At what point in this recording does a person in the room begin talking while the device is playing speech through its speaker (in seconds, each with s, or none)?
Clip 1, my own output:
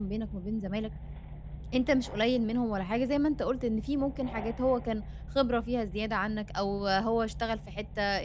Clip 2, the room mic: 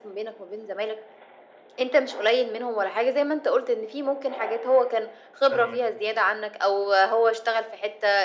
5.4 s